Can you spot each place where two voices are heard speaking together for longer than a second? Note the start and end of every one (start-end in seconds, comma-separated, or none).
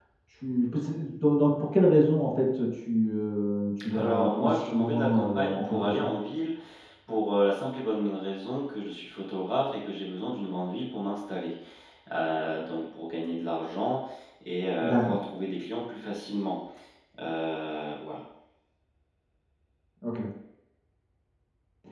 3.9-6.1